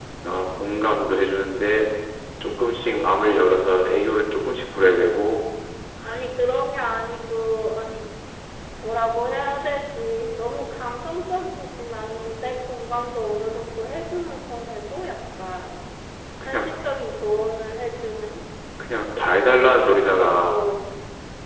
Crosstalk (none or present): present